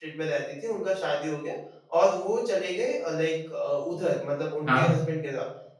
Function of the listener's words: listening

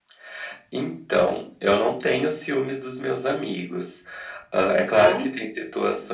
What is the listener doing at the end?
listening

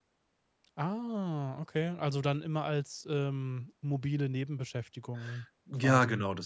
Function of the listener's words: taking over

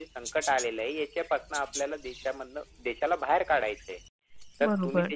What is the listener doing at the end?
listening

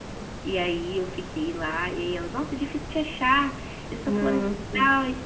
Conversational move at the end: listening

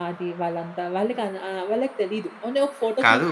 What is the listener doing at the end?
taking over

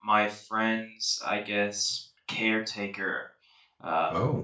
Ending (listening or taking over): listening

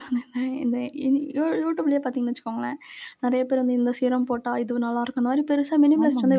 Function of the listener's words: taking over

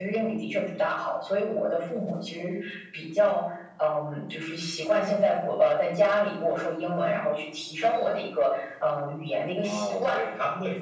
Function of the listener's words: taking over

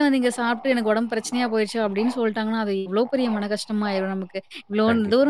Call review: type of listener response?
listening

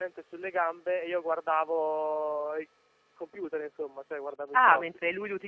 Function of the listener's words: taking over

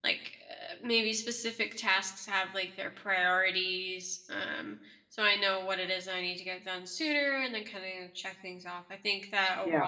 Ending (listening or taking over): listening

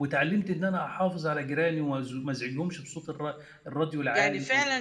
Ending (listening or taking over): taking over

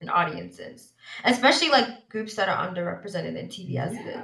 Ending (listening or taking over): taking over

